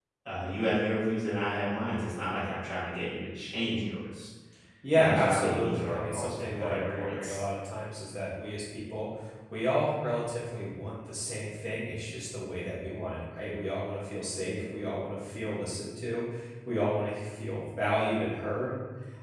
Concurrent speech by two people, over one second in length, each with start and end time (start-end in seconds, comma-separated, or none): 4.9-7.4